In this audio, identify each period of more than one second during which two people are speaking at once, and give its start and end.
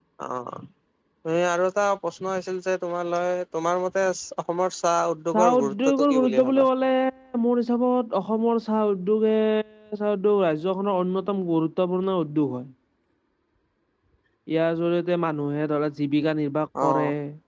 5.4-6.7

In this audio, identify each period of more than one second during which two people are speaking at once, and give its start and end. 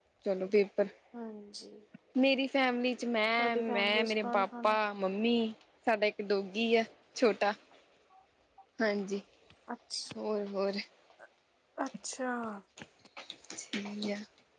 3.4-4.8

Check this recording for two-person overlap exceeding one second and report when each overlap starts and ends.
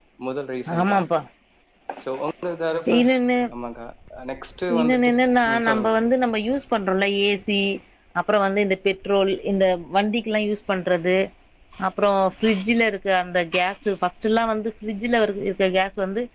none

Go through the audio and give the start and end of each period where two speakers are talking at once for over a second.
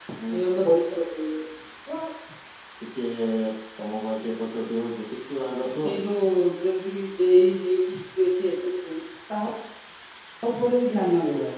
none

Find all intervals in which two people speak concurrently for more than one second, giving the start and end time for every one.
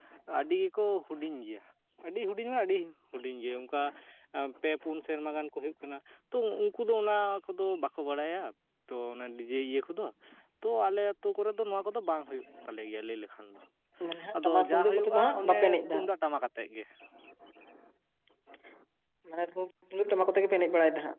14.3-16.1

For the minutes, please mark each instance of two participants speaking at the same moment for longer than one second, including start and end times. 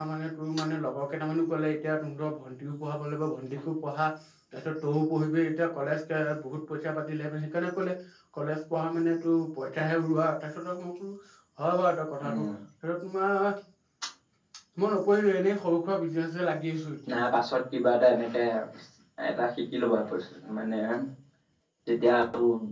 none

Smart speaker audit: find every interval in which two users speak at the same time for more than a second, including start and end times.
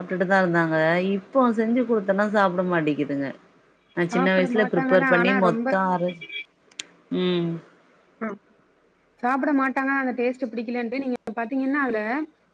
4.1-5.6

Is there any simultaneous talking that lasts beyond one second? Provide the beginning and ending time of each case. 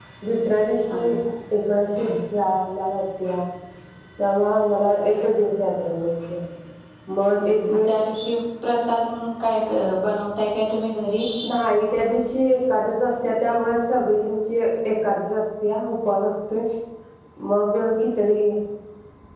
none

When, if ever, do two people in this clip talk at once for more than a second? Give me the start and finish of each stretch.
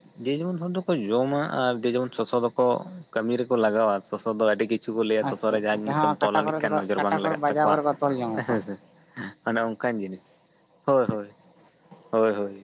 5.3-7.8

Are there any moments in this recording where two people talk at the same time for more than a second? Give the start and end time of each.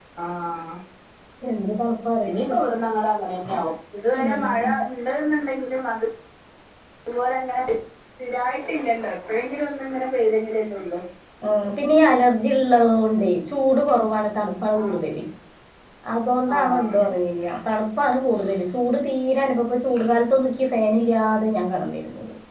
none

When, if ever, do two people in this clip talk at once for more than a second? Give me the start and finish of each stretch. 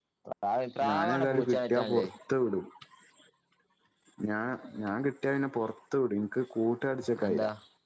0.9-2.1

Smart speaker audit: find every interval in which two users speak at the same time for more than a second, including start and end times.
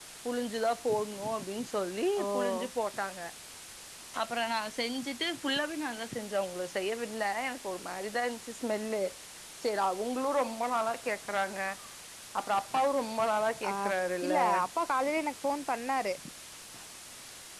none

